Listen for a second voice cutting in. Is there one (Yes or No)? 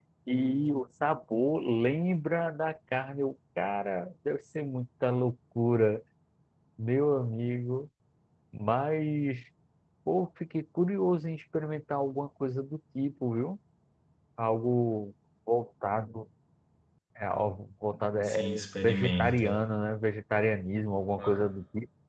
Yes